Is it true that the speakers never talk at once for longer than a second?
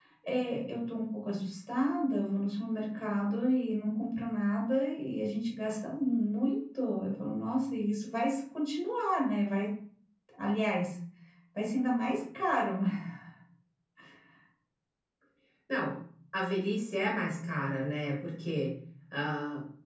Yes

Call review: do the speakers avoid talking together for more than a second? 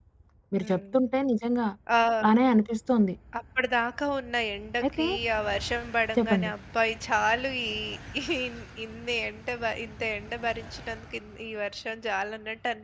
Yes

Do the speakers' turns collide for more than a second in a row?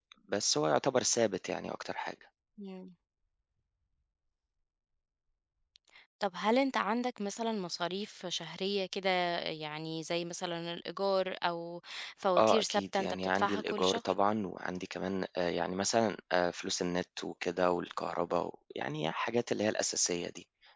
Yes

